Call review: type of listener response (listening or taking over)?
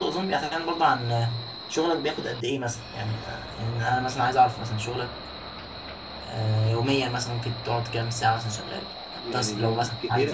taking over